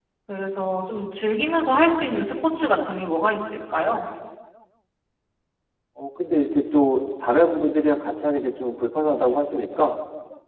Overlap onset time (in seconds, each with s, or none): none